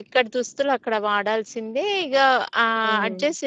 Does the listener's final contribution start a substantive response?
No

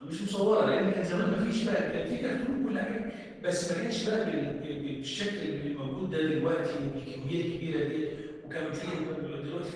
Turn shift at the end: No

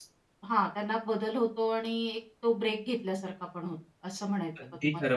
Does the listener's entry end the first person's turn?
Yes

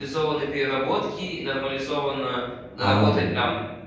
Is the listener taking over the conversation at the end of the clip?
No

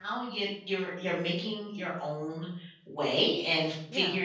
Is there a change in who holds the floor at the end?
No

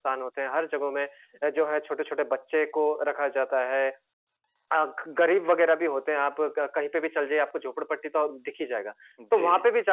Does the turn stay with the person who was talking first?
Yes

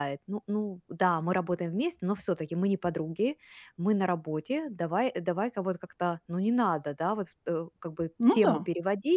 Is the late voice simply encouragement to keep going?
Yes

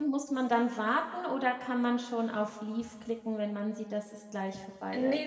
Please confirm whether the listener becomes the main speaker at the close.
Yes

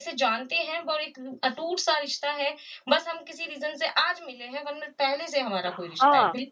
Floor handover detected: Yes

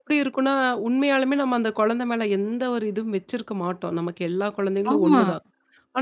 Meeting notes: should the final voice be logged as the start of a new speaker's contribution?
No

